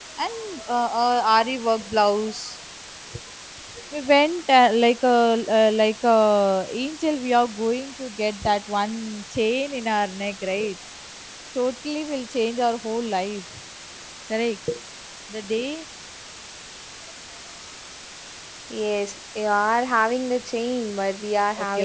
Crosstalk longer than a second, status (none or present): none